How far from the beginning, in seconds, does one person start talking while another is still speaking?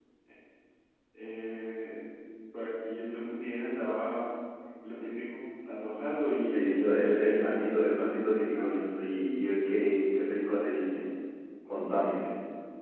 6 s

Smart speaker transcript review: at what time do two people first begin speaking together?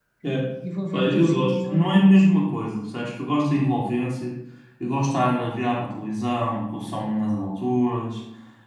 1 s

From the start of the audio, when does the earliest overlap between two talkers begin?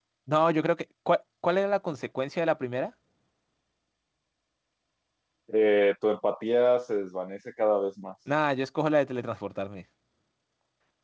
none

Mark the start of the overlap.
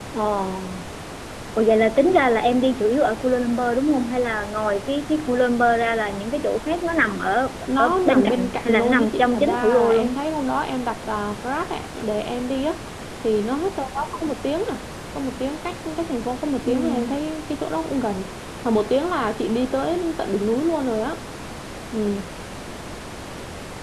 8 s

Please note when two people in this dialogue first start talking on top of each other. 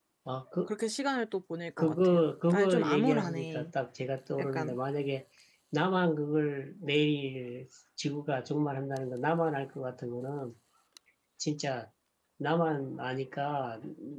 2 s

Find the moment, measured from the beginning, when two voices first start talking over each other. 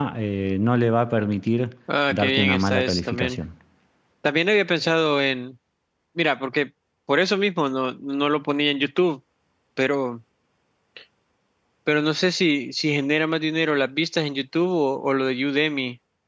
2 s

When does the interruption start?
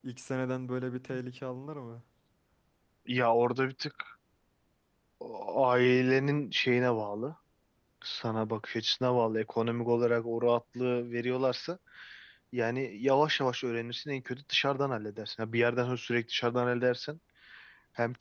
none

